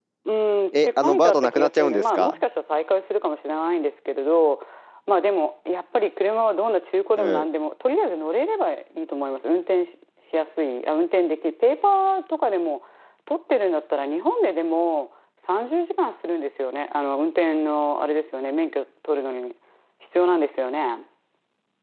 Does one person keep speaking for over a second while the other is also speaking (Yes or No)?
Yes